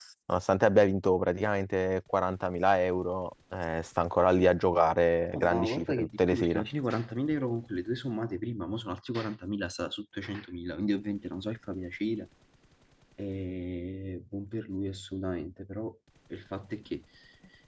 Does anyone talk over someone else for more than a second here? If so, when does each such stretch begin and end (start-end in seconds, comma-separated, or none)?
5.3-6.7